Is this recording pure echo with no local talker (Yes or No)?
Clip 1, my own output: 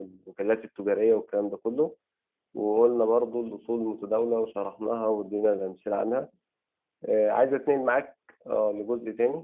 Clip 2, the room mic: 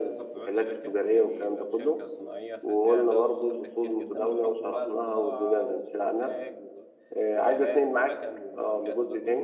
No